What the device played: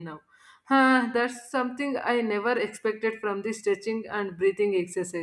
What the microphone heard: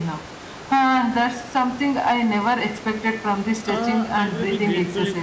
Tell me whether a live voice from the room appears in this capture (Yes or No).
Yes